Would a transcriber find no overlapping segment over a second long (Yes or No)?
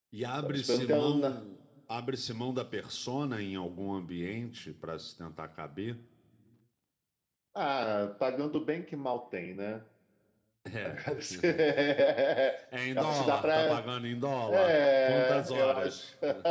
No